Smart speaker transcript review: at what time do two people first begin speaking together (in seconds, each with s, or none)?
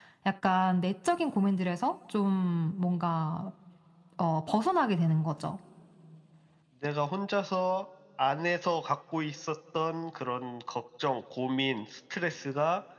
none